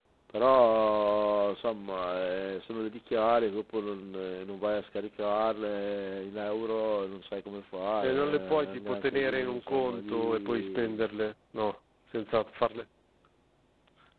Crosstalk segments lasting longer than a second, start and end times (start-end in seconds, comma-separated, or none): 8.1-11.1